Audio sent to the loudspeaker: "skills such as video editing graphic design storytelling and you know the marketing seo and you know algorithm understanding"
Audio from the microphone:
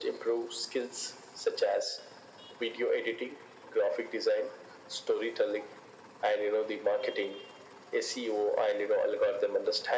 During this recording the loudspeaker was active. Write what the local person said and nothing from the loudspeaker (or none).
none